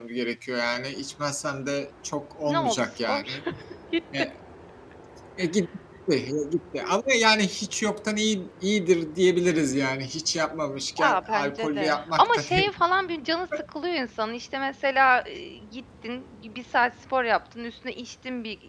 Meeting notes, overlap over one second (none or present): present